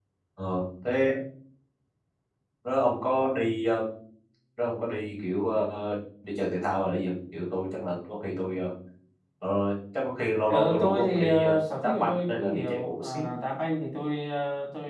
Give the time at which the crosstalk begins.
10.5 s

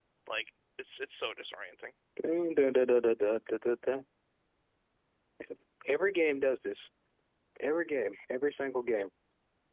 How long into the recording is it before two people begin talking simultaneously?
none

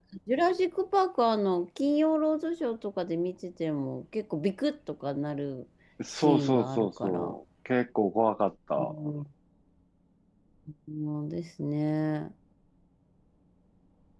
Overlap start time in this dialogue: 6.1 s

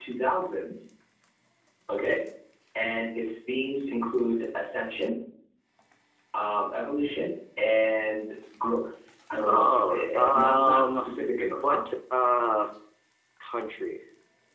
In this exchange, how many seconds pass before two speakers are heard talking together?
9.4 s

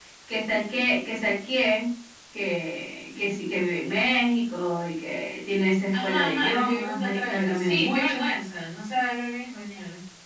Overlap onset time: 5.9 s

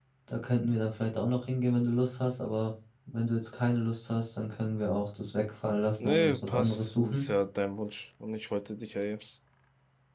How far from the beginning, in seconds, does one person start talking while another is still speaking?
6.0 s

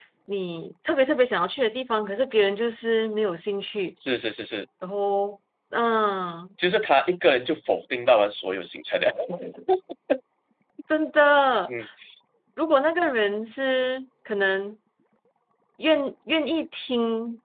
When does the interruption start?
none

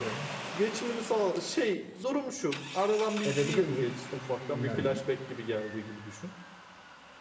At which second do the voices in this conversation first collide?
3.2 s

